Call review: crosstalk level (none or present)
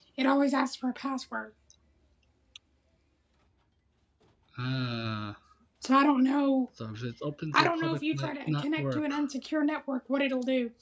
present